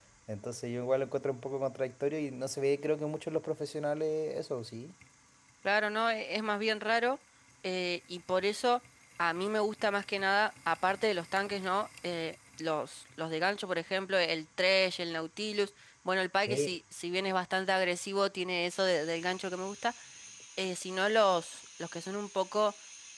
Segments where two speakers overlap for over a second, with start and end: none

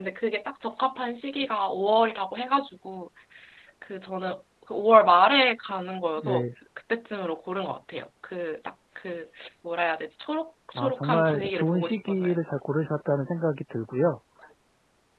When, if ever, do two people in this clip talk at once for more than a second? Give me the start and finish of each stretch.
10.8-12.3

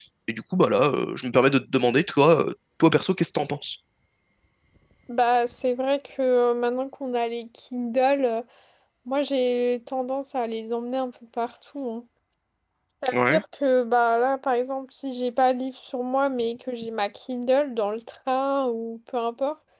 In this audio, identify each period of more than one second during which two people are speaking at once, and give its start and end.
none

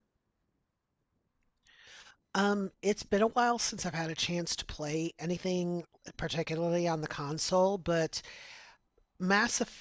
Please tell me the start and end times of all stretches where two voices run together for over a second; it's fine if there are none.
none

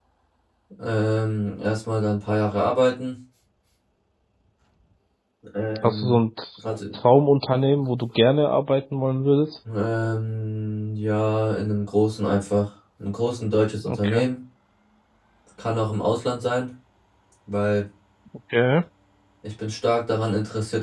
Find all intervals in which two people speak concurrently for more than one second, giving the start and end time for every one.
none

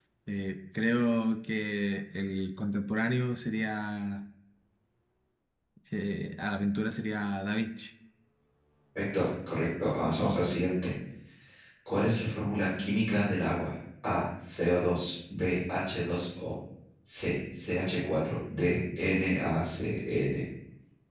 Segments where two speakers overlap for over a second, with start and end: none

